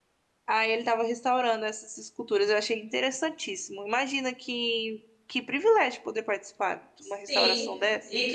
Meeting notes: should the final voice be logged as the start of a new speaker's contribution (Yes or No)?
Yes